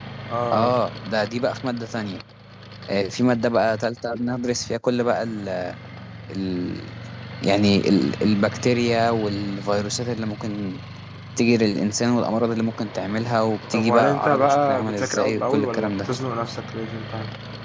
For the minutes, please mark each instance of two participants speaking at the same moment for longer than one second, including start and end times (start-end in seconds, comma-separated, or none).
13.7-16.1